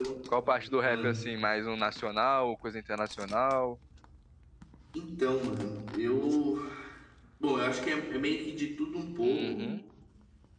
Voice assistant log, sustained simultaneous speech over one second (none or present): none